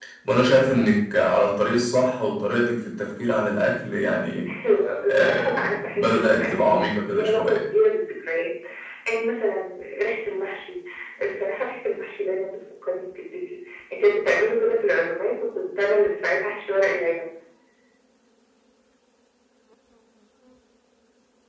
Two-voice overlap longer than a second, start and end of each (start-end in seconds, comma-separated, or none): 5.1-7.6